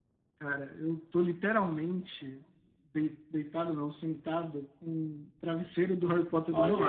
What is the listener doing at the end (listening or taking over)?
taking over